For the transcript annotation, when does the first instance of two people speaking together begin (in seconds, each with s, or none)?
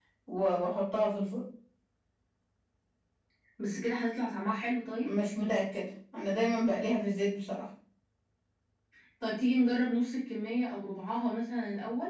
none